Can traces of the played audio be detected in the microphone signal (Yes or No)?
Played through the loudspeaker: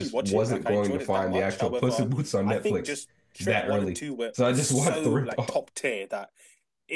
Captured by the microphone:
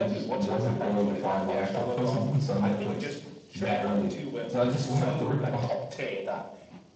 Yes